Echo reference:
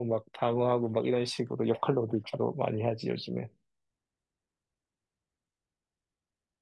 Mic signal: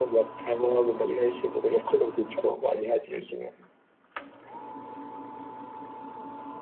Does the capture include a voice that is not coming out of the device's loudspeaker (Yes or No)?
No